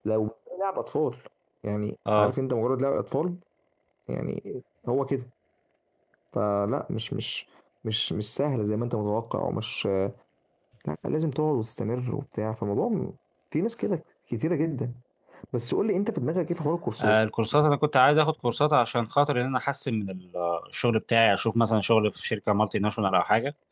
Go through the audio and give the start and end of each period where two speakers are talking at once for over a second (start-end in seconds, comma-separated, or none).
none